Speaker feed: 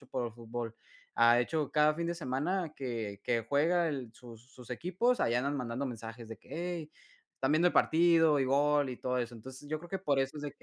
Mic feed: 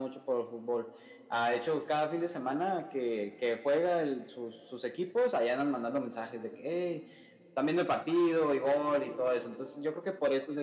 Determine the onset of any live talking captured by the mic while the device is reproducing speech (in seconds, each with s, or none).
none